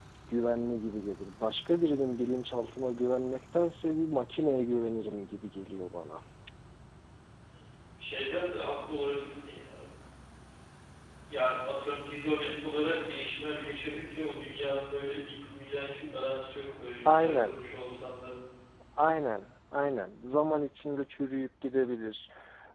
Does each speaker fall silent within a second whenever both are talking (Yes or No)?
Yes